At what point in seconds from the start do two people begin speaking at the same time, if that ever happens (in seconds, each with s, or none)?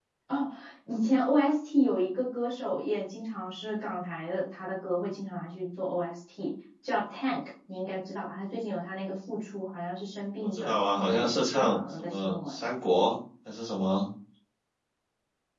10.4 s